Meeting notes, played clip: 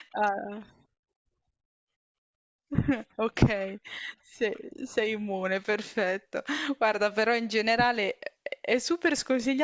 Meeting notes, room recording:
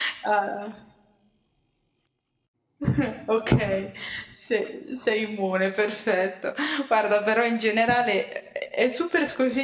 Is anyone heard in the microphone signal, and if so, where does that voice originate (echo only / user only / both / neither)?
echo only